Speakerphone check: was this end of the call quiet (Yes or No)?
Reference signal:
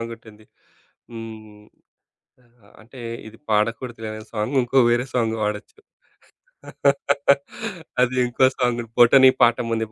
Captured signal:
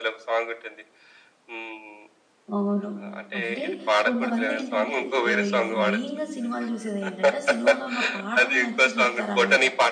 No